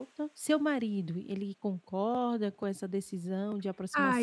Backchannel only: No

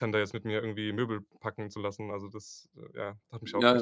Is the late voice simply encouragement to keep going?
No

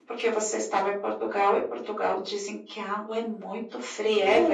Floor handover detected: Yes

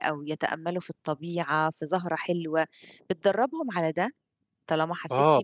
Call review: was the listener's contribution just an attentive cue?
No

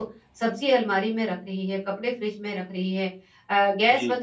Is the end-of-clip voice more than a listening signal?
No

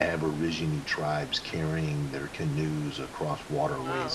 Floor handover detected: No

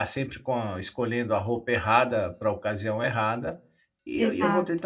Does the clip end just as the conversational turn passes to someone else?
No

